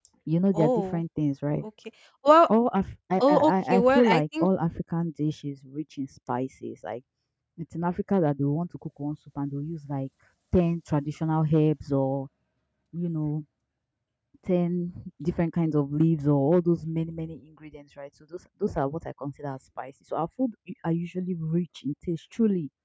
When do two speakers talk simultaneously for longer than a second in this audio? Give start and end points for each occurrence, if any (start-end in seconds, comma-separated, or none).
3.2-4.5